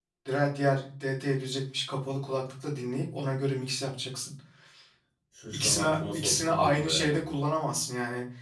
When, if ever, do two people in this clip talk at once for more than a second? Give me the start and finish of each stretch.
5.5-7.1

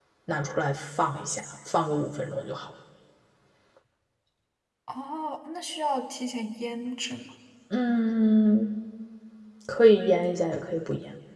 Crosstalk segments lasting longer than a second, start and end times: none

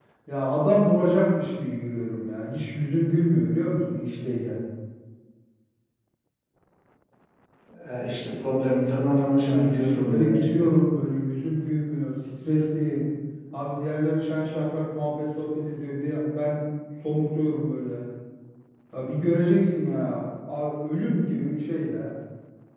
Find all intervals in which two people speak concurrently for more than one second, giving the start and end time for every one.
9.4-10.7

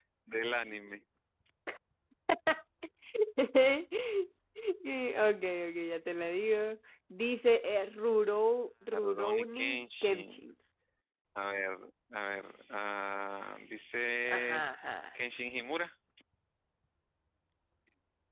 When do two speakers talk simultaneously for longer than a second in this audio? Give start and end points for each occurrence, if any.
8.9-10.4

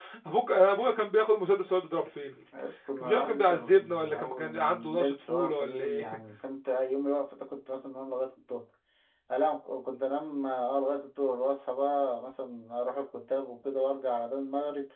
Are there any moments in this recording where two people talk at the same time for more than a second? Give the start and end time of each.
3.0-6.2

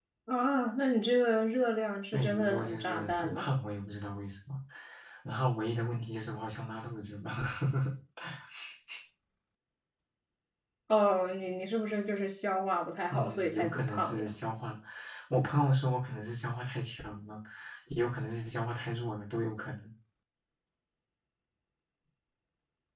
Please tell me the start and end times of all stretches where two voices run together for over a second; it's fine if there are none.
2.1-3.5, 13.1-14.3

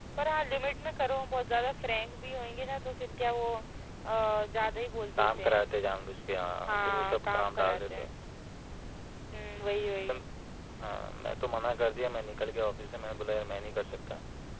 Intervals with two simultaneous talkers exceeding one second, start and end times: 6.7-8.1

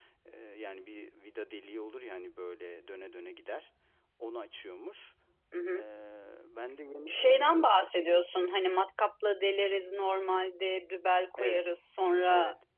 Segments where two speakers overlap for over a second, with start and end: none

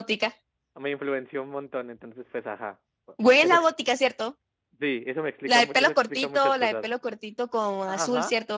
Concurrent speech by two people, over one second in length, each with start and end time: 5.5-6.9

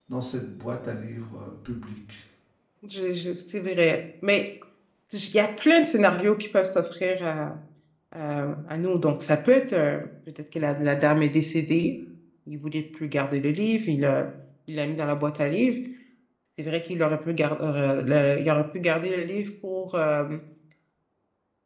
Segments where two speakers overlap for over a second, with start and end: none

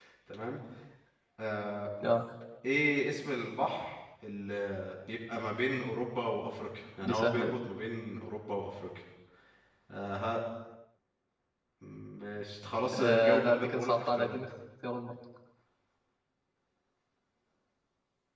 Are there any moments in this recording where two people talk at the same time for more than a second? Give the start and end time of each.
13.0-14.4

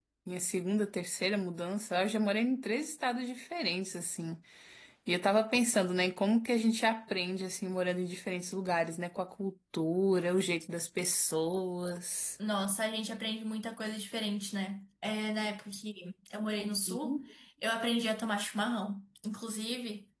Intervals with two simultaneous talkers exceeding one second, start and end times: none

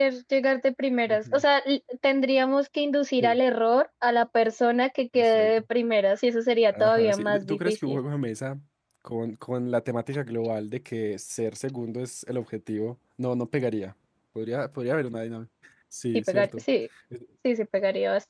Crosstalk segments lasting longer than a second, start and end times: 6.7-8.0

